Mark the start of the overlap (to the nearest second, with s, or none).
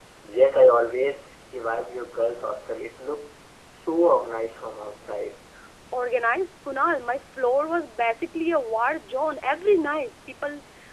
none